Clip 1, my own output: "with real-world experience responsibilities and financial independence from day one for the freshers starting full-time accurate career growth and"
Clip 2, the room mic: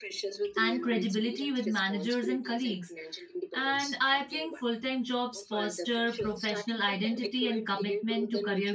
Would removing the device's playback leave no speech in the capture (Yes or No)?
No